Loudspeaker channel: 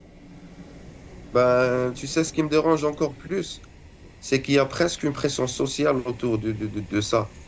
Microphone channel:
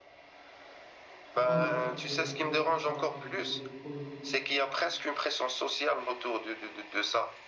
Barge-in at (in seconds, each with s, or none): 1.3 s